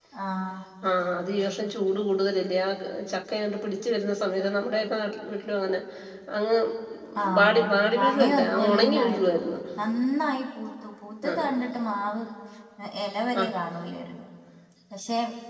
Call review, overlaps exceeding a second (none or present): present